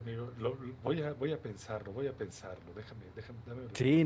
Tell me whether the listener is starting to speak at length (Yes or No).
Yes